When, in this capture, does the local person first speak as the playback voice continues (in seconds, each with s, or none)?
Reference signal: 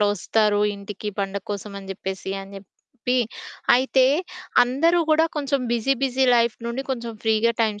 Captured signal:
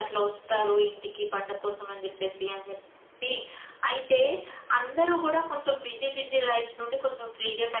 none